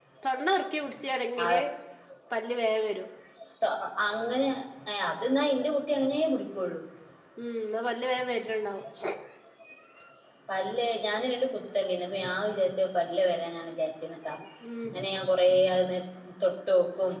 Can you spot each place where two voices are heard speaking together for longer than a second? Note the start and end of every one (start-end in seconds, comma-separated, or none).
none